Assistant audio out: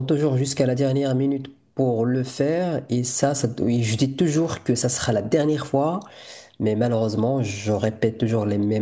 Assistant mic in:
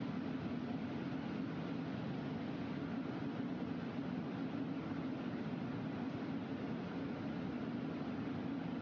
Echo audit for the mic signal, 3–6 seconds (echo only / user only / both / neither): neither